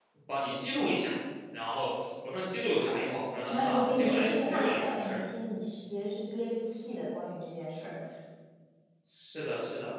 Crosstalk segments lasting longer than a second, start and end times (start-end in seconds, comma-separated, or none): 3.5-5.2